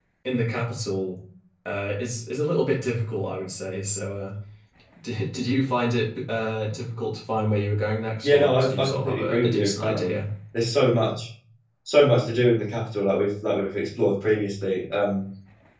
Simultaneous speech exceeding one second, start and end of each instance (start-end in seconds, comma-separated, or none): 8.2-10.2